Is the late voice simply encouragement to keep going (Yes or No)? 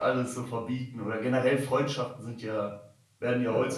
Yes